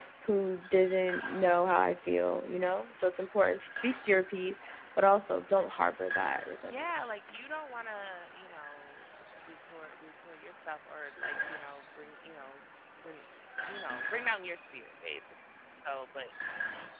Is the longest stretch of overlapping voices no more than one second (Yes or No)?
Yes